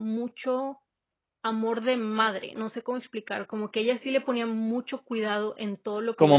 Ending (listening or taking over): listening